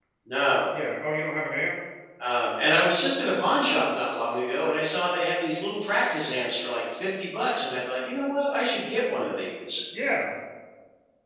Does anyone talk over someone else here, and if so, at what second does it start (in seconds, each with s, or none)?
none